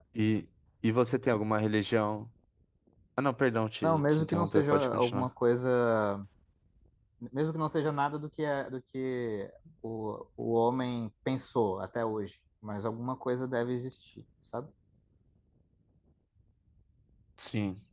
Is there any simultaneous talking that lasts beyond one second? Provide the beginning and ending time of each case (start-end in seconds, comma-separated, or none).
3.8-5.3